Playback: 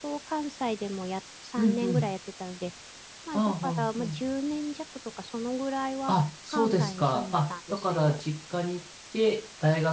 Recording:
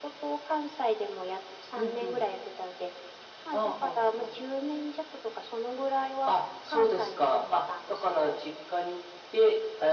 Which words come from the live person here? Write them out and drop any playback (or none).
none